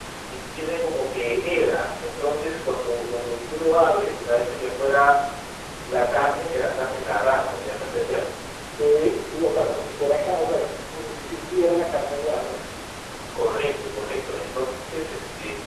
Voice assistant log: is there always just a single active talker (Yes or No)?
Yes